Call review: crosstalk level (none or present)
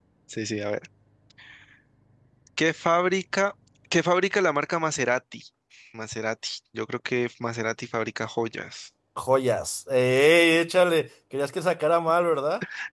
none